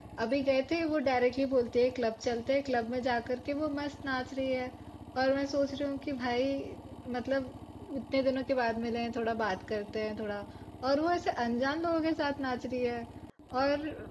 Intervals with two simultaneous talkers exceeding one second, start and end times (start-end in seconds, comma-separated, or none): none